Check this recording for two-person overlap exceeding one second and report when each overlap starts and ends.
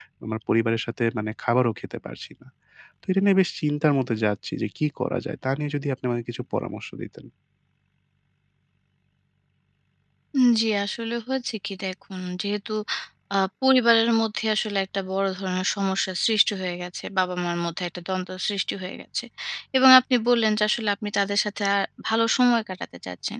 none

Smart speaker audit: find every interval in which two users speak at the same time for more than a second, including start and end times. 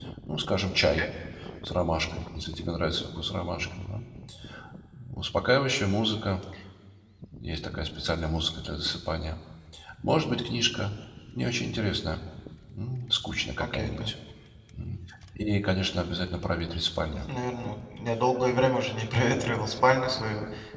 none

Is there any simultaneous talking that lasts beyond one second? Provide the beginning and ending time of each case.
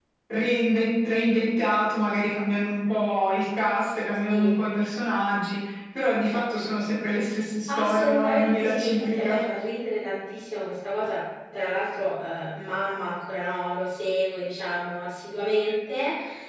7.7-9.4

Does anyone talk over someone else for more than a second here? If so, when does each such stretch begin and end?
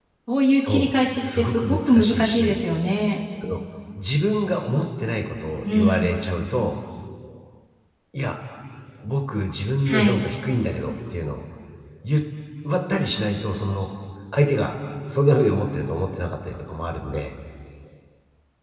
0.6-2.6

